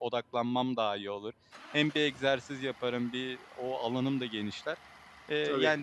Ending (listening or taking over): listening